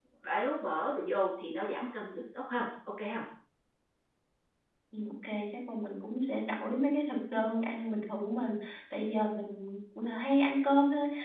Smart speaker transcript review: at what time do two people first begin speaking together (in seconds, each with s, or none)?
none